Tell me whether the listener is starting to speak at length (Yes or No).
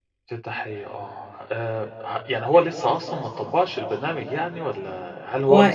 No